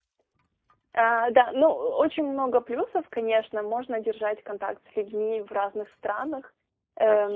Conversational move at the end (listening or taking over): listening